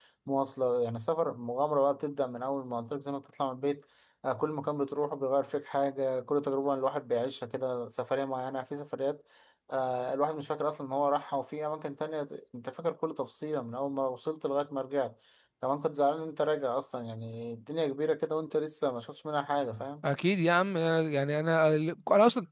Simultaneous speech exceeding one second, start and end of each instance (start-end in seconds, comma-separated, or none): none